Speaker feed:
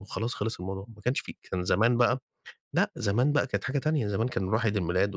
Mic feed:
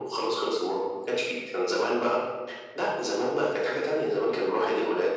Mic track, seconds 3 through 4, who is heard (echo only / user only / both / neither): echo only